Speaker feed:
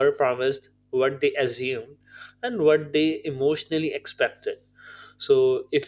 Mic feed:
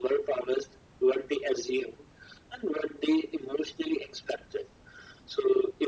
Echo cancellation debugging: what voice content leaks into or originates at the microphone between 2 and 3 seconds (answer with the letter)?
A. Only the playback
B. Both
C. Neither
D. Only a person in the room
A